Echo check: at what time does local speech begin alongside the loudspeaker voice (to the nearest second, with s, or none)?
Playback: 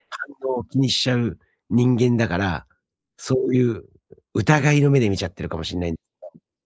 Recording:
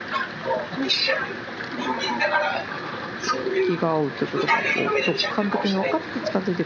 4 s